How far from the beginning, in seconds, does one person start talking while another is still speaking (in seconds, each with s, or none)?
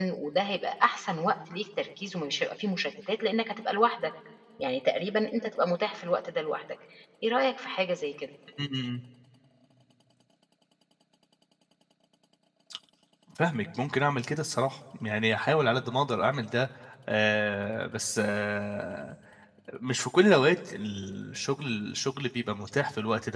none